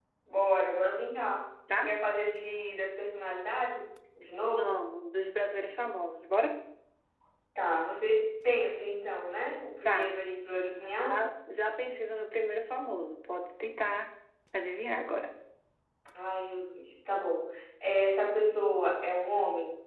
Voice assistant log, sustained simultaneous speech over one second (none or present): none